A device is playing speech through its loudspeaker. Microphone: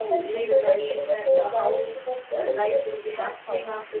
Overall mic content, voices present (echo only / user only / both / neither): both